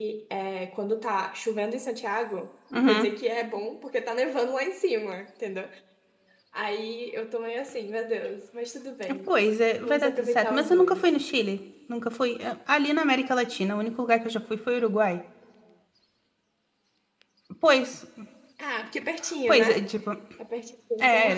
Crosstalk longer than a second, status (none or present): present